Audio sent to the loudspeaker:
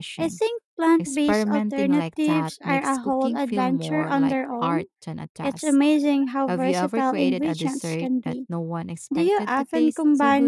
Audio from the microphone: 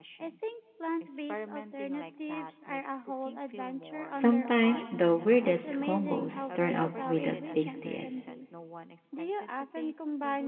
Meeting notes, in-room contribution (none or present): present